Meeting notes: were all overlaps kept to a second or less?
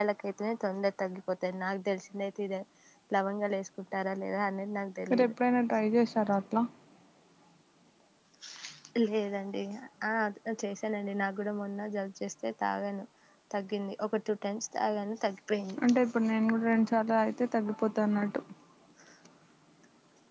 Yes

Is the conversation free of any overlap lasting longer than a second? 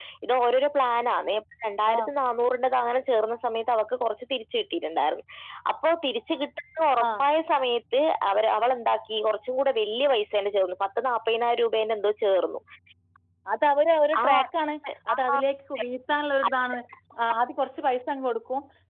Yes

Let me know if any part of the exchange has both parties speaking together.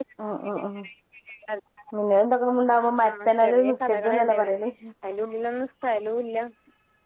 Yes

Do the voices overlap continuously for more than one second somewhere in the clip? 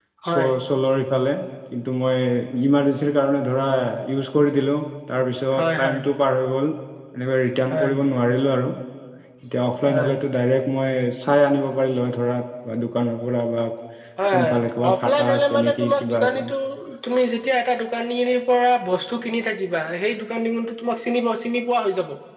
Yes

